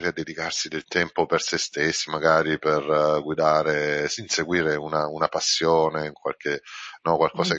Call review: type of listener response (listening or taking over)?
listening